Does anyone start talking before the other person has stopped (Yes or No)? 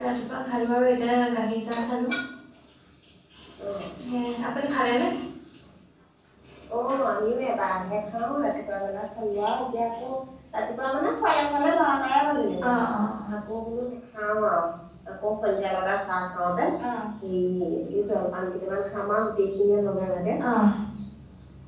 No